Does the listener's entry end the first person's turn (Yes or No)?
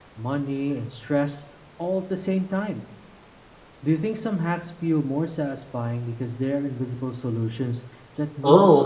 Yes